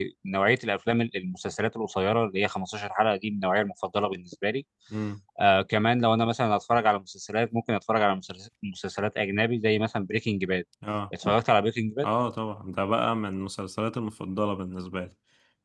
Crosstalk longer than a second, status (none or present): none